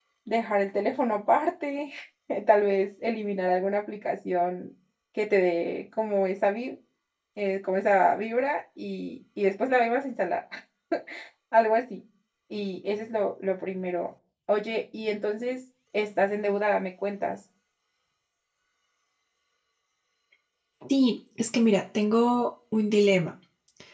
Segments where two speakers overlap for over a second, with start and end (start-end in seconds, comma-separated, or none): none